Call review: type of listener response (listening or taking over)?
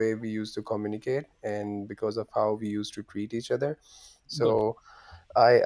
listening